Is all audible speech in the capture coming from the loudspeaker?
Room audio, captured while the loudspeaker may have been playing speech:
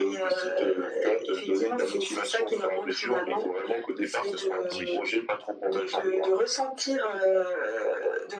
No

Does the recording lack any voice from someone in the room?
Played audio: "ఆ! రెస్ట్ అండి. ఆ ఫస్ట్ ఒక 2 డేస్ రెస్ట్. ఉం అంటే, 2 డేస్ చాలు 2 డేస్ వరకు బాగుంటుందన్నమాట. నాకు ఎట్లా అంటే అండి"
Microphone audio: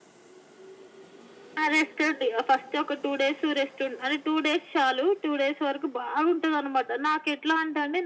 Yes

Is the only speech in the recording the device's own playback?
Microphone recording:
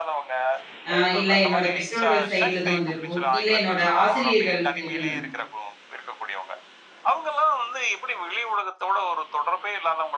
No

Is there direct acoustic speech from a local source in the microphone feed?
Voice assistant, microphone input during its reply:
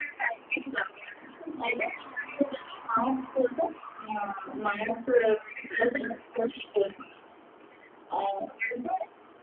No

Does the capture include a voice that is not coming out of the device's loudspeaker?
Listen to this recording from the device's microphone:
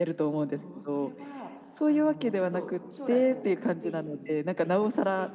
Yes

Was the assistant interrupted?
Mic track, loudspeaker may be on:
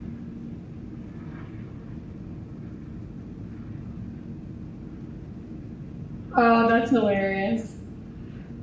Yes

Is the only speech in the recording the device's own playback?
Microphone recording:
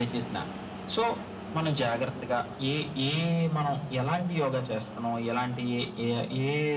Yes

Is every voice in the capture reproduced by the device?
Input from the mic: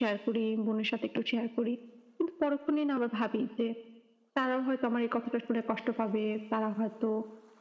Yes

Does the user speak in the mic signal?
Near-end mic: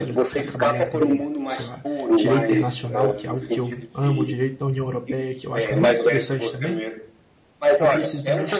Yes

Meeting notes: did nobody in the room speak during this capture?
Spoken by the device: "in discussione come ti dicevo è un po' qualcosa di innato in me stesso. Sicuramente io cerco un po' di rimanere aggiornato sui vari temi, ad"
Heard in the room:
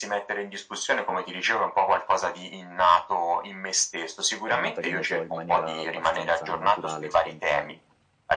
No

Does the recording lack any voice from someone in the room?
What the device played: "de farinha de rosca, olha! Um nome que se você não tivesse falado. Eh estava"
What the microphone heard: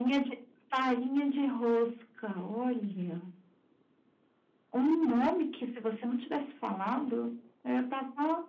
Yes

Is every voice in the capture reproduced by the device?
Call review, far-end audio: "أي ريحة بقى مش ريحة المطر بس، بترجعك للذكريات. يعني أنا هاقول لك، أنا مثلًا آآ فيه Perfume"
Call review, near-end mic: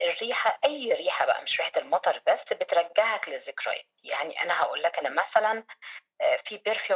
Yes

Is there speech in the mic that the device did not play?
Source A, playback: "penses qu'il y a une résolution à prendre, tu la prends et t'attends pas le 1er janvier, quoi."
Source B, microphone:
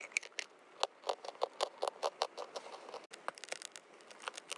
No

